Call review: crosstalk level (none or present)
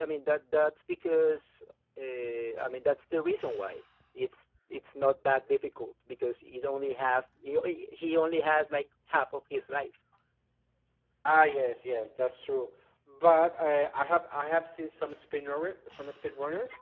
none